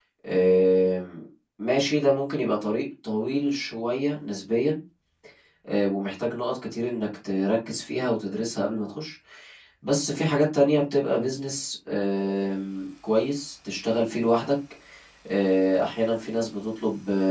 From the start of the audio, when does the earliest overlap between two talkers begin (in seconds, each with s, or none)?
none